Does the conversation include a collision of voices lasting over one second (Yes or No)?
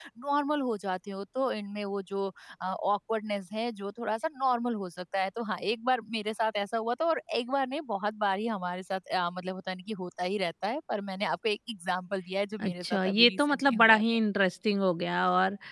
Yes